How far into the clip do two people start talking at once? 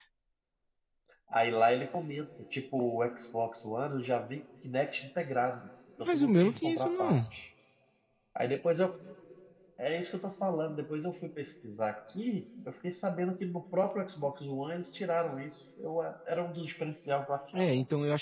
6 s

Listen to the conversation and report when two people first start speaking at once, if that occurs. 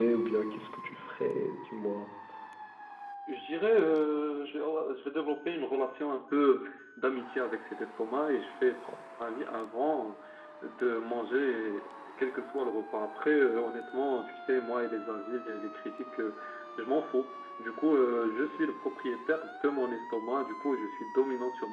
none

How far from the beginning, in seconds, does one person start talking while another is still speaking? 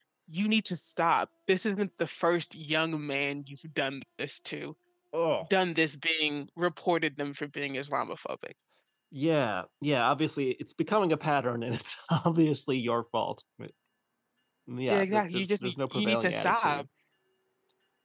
15 s

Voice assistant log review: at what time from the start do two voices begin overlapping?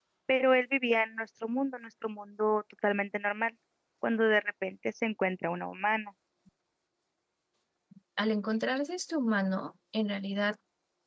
none

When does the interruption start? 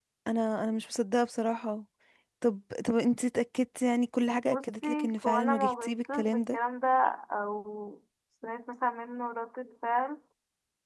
5 s

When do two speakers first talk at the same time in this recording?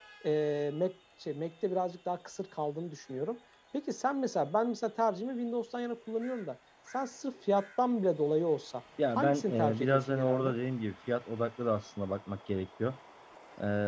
9 s

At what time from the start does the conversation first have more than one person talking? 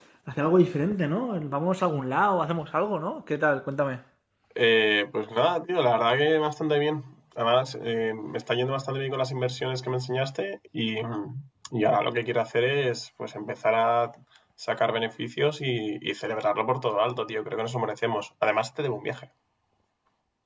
none

